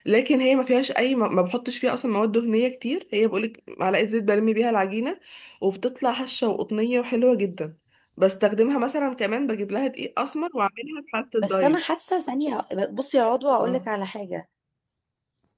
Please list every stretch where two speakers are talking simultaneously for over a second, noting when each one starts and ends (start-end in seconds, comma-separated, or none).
none